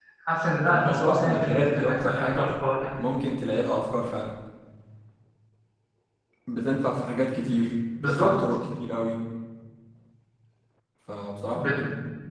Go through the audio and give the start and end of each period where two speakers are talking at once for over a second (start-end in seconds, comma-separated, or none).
0.7-2.4